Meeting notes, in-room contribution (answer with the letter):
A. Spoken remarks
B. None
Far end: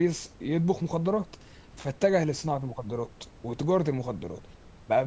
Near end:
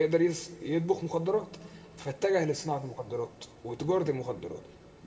B